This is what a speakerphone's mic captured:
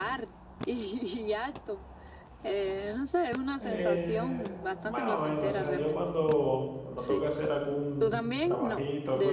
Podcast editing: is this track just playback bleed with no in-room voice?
No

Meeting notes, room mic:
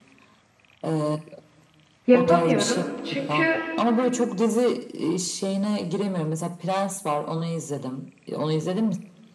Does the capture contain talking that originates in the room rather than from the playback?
Yes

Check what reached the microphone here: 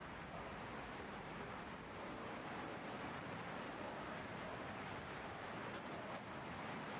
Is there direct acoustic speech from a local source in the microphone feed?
No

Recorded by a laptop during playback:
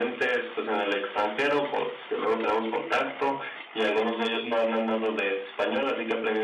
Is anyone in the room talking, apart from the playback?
No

